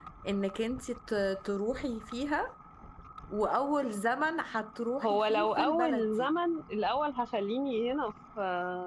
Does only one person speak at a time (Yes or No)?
No